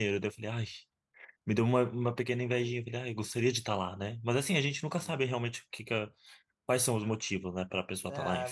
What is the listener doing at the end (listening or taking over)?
taking over